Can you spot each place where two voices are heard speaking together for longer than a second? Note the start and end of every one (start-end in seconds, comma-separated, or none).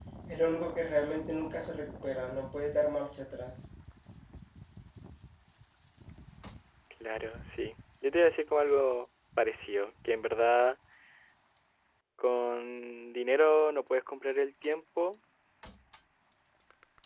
none